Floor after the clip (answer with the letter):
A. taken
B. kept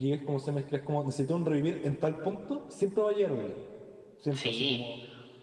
B